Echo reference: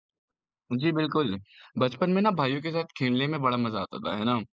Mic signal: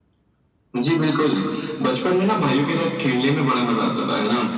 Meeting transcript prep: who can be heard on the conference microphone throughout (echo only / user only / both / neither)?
echo only